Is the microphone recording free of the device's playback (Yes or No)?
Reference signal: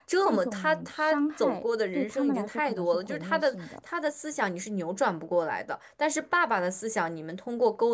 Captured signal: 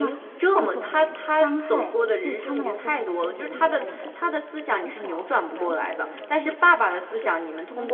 No